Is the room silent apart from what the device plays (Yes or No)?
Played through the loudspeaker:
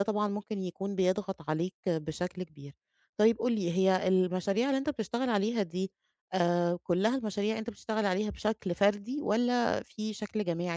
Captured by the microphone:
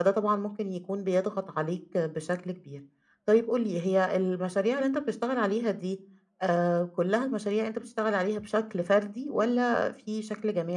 Yes